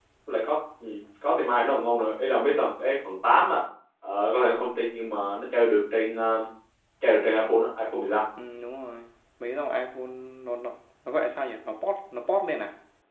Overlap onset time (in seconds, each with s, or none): none